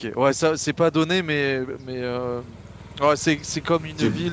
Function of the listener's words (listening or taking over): listening